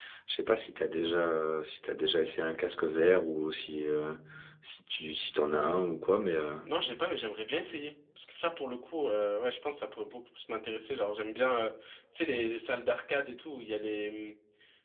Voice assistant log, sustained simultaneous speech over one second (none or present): none